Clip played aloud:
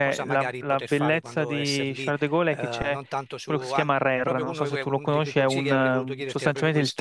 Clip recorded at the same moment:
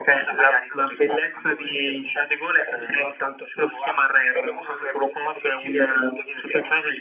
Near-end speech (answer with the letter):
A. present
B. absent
B